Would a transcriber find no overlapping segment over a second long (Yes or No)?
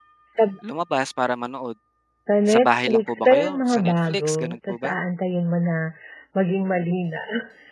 No